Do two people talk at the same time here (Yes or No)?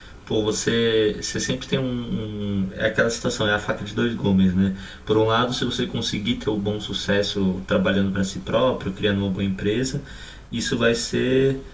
No